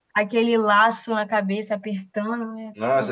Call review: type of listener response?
taking over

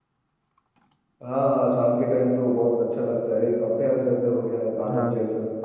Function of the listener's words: taking over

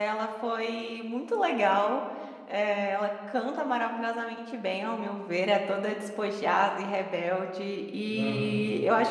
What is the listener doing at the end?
listening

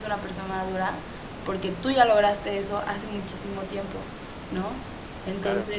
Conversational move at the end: listening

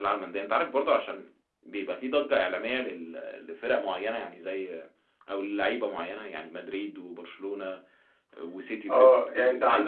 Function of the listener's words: taking over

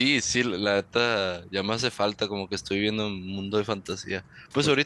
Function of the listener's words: listening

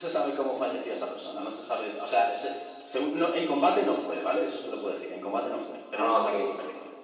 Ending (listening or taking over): taking over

